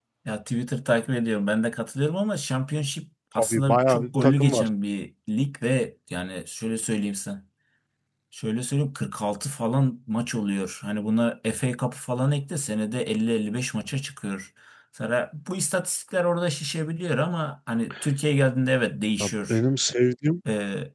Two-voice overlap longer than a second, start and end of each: 3.4-4.6

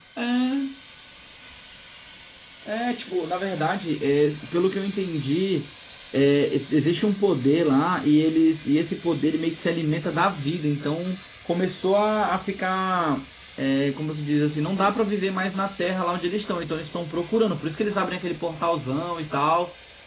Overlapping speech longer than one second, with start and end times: none

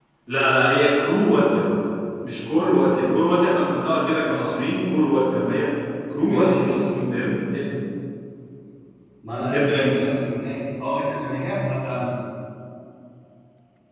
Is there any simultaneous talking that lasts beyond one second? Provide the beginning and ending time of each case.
none

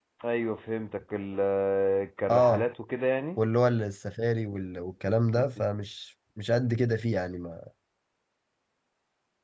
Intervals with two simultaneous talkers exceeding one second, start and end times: none

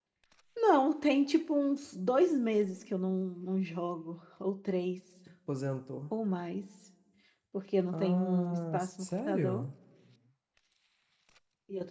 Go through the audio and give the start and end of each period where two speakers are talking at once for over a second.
7.9-9.7

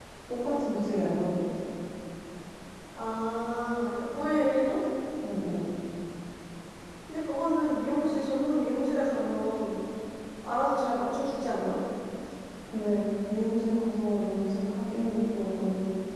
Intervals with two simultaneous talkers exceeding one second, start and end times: none

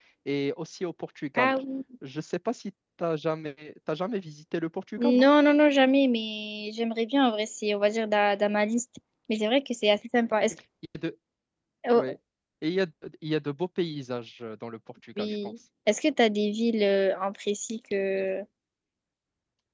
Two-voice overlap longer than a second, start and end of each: none

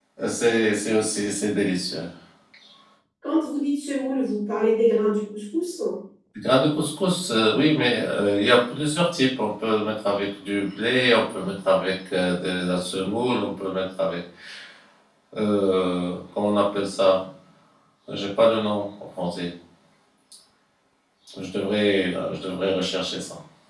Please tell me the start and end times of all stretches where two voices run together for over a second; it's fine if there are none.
none

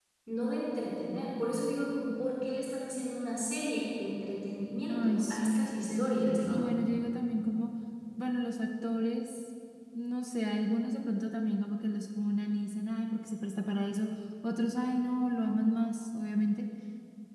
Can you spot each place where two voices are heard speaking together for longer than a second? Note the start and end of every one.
4.9-6.6

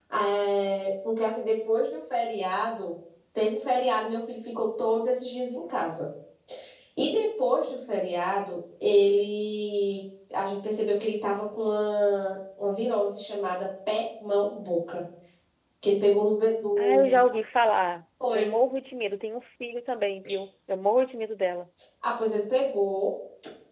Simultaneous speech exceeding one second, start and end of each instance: none

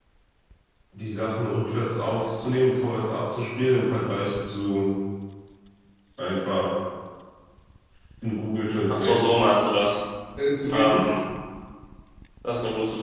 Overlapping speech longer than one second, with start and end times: none

